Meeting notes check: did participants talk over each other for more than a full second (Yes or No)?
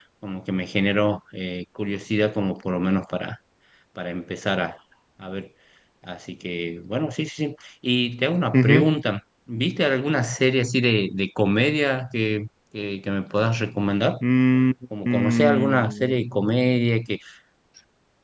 Yes